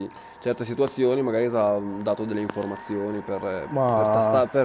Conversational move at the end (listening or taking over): listening